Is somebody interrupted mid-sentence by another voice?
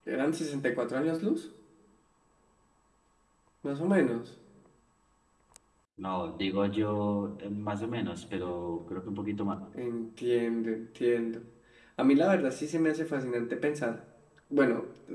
No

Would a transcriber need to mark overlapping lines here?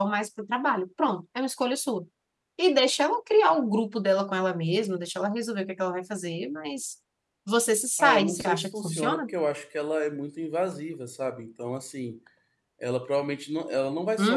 Yes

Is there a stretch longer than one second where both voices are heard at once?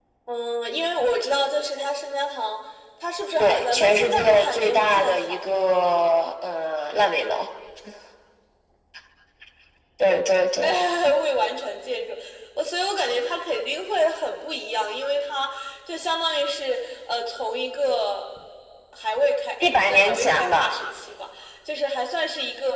Yes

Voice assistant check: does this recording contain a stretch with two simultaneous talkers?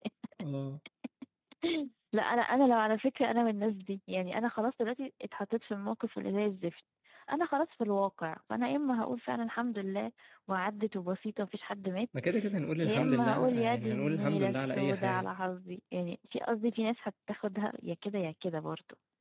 Yes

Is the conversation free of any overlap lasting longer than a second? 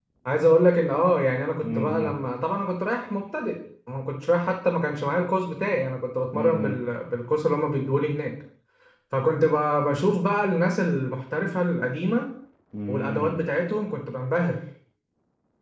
Yes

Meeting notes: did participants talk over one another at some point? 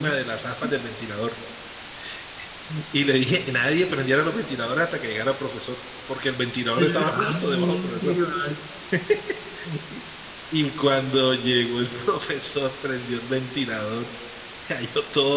Yes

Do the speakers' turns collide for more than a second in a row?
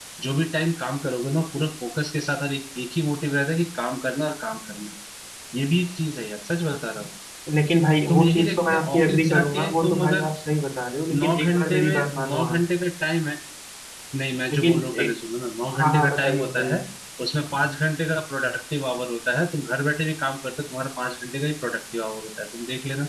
Yes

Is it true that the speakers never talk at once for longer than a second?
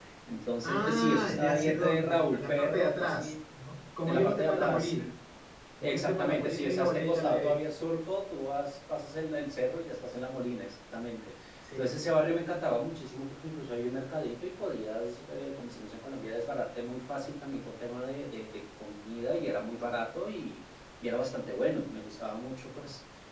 No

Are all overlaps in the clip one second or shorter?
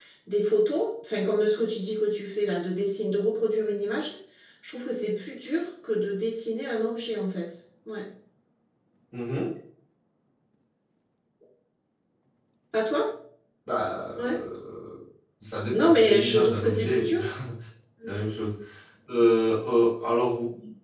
No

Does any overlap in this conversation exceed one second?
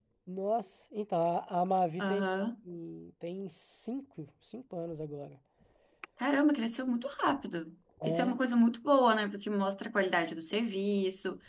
No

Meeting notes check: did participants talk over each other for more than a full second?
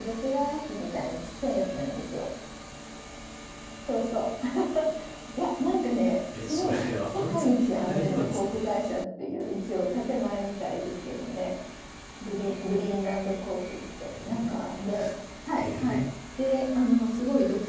Yes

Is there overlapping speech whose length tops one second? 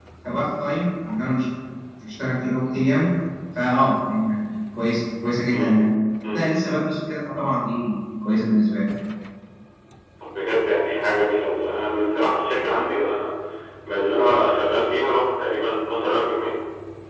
No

